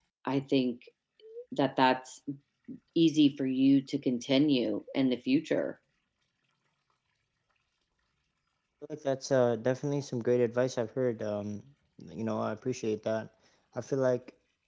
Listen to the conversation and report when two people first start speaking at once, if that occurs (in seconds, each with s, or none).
none